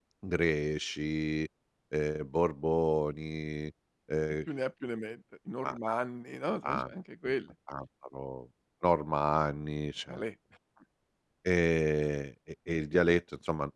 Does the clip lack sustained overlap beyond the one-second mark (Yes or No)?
Yes